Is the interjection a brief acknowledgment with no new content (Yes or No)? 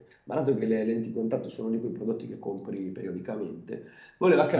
Yes